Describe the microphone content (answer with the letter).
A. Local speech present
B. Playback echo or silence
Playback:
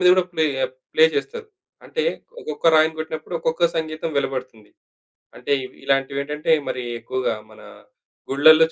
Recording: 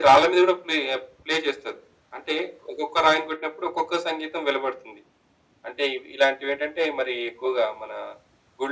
B